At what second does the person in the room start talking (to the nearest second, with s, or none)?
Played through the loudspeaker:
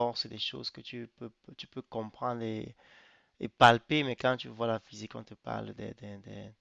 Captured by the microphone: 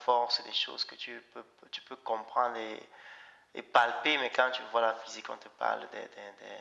none